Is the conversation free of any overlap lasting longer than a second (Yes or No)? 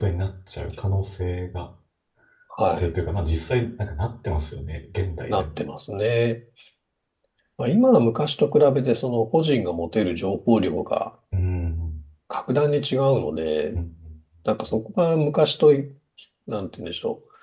Yes